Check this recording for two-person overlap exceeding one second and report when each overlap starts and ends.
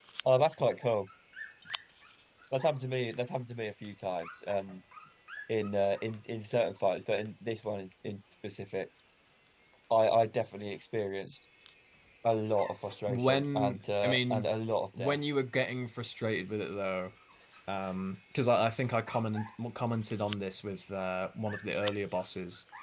13.1-14.5

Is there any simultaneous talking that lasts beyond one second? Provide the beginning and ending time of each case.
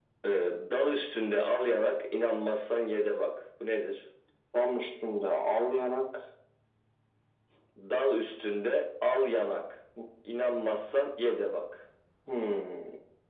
none

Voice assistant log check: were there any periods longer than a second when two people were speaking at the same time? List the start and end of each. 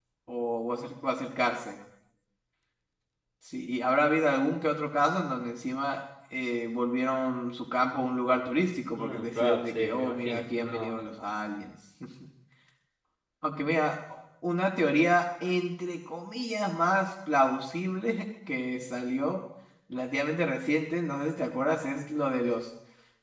9.0-10.9

